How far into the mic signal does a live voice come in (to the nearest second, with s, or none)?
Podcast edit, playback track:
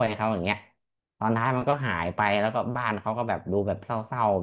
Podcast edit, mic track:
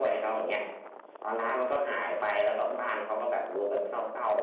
none